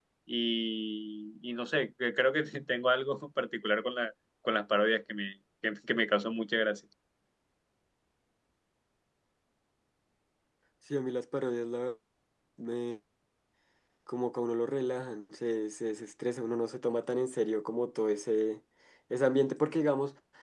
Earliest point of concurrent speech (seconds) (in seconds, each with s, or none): none